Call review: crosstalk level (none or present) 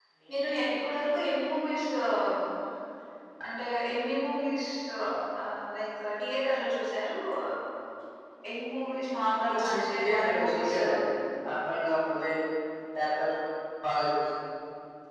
present